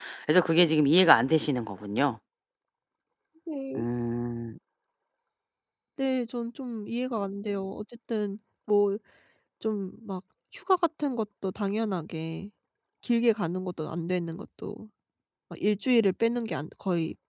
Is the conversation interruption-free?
Yes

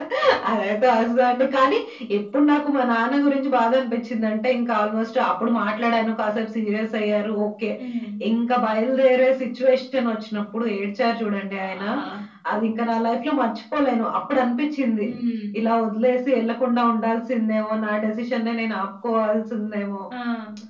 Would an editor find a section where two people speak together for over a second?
No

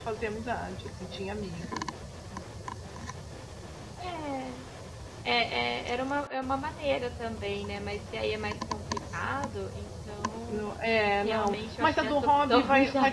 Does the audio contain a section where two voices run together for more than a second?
Yes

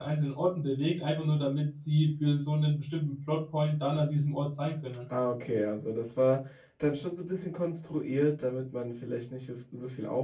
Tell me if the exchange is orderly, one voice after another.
Yes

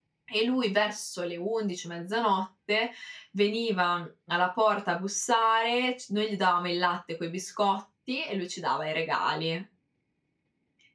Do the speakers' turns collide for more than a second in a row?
No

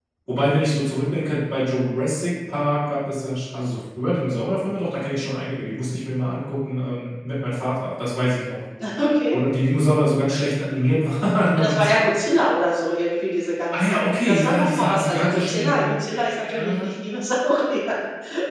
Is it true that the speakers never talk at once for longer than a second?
No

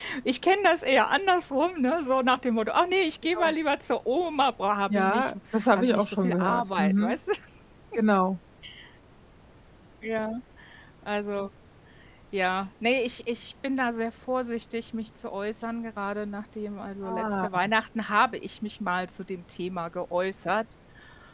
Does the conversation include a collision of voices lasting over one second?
Yes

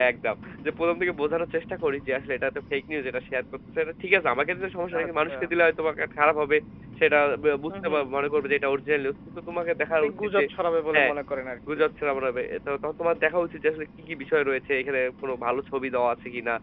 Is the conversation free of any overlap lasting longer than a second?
Yes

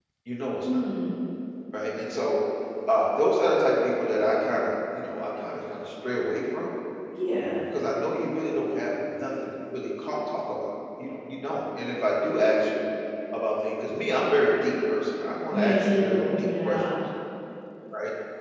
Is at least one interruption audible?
Yes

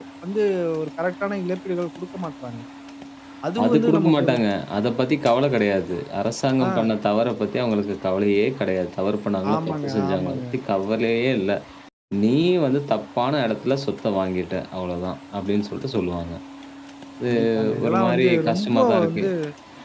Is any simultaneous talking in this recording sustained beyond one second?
Yes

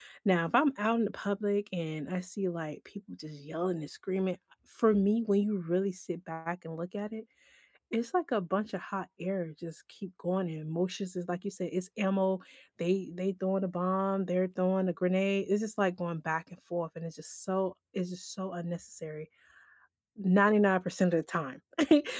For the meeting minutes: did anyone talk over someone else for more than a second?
No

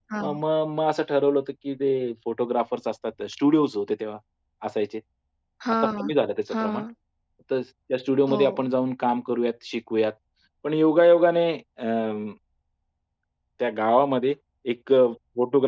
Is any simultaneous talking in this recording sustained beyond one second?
No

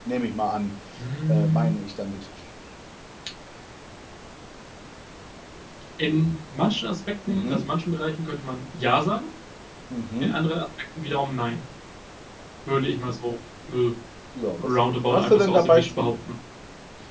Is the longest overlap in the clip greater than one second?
Yes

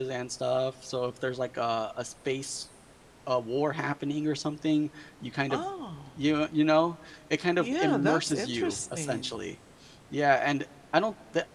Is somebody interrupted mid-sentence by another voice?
Yes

